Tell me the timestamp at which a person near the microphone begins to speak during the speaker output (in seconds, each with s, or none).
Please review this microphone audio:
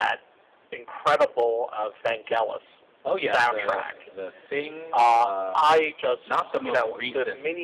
3.0 s